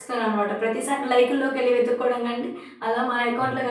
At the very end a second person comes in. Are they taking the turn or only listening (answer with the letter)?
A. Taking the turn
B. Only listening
B